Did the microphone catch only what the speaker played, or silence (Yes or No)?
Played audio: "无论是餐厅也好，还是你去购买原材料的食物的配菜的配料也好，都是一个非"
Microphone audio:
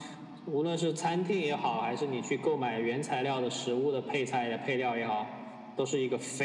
Yes